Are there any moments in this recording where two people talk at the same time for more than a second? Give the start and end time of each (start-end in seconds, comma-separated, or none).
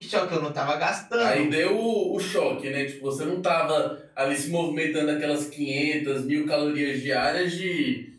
none